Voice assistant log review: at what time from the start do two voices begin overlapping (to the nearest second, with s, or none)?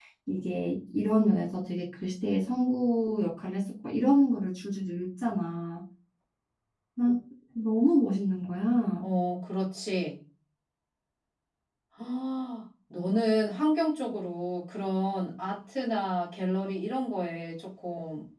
none